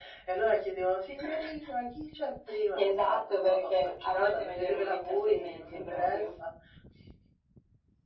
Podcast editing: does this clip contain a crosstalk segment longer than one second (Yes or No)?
Yes